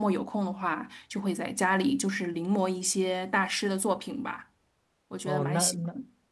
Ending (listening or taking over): taking over